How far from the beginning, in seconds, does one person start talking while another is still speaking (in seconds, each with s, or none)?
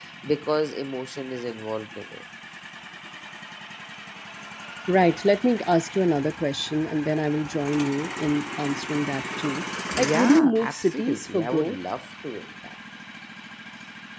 10.0 s